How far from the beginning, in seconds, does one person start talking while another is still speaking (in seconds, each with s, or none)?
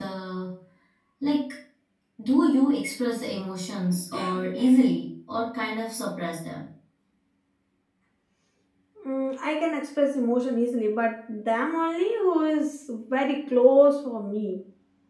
none